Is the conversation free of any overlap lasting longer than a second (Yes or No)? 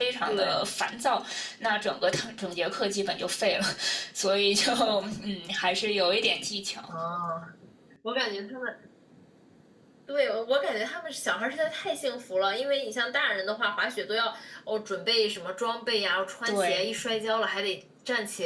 Yes